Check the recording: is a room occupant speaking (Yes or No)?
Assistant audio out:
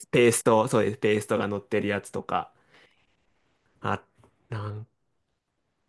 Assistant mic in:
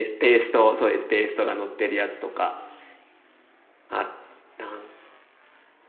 No